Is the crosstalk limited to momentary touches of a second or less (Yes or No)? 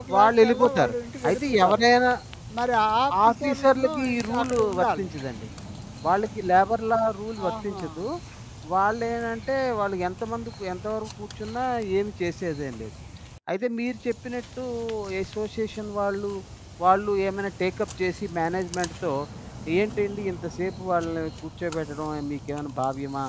No